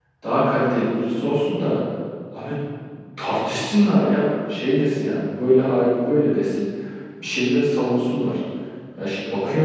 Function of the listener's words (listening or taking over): listening